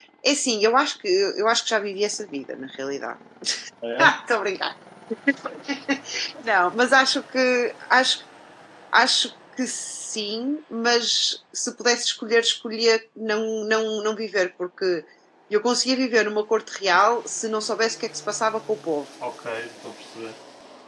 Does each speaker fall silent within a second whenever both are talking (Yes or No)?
Yes